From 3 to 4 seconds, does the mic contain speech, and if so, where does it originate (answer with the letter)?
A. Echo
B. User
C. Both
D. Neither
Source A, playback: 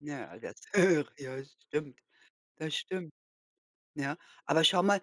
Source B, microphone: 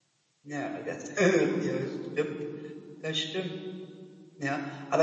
A